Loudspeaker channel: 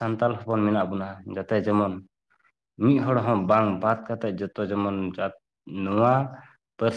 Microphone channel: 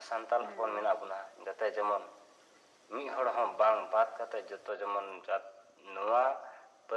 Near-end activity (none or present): present